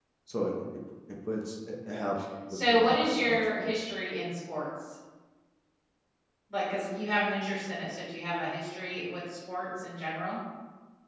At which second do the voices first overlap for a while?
2.5 s

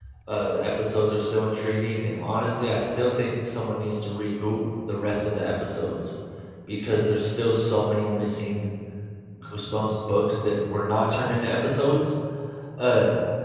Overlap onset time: none

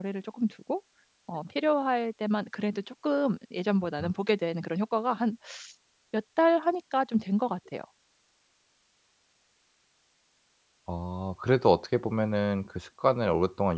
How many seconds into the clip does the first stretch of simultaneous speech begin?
none

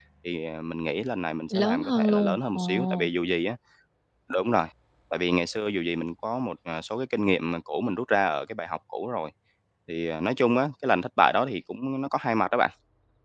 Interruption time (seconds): 1.5 s

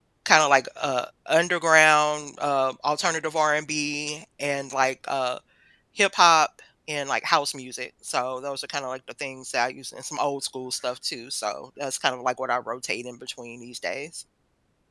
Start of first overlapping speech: none

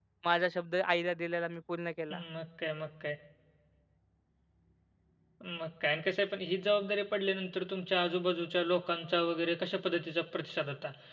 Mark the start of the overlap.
none

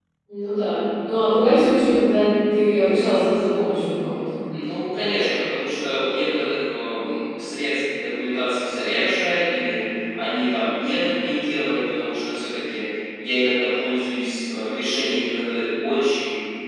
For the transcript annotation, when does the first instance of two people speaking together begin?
none

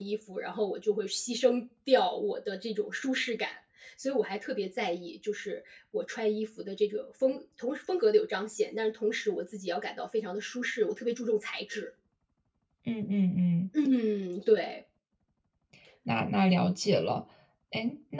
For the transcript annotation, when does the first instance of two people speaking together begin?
none

